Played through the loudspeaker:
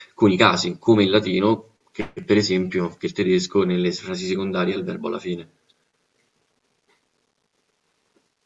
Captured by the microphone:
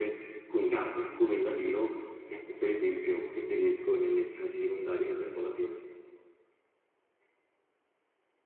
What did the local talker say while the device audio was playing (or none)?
none